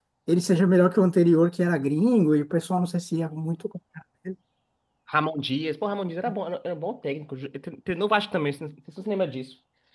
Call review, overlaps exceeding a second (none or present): none